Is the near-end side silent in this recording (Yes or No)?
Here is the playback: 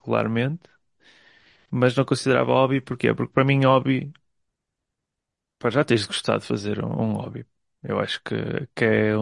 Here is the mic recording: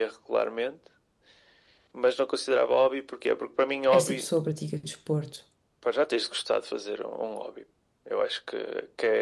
No